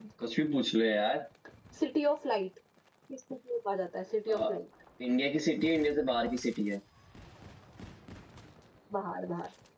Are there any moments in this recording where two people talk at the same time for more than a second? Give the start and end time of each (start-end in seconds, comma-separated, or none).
none